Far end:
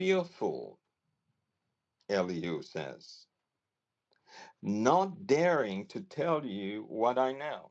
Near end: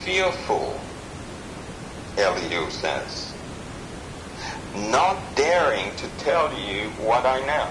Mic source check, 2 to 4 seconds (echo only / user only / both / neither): echo only